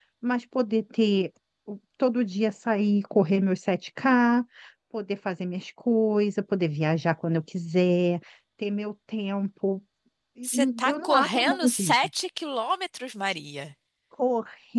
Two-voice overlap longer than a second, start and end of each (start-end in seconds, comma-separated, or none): 10.4-11.9